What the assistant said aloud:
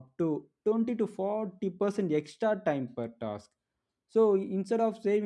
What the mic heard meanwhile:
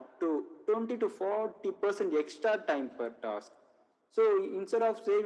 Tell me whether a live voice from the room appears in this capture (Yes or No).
No